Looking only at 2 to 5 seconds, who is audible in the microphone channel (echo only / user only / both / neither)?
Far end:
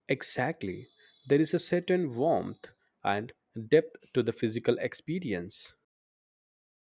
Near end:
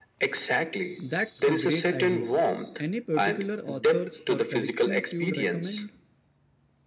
both